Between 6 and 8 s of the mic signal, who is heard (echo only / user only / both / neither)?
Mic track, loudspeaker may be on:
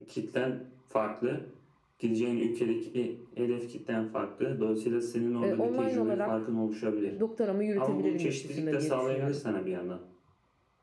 both